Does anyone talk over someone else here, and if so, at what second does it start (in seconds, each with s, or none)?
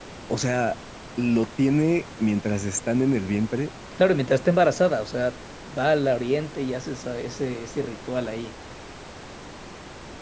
none